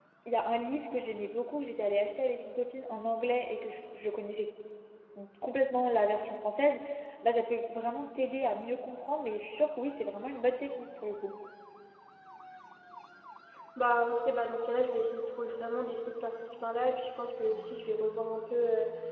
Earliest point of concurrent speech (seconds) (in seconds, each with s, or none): none